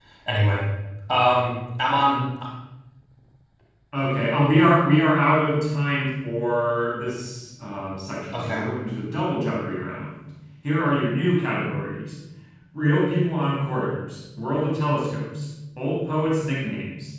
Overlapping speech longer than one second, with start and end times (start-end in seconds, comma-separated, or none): none